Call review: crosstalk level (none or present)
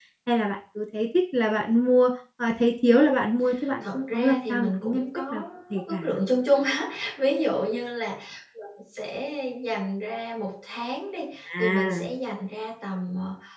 present